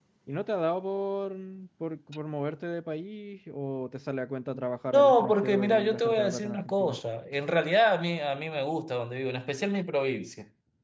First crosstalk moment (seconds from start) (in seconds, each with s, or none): 4.9 s